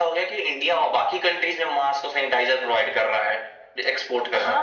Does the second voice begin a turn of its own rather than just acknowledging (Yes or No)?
Yes